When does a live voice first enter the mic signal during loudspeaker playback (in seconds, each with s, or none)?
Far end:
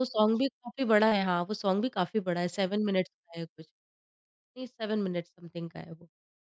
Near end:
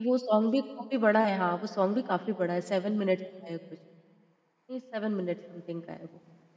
none